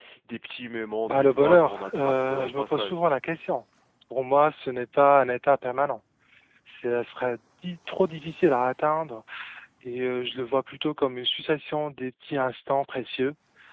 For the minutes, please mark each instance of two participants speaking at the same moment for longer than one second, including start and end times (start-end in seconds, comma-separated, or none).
1.1-3.0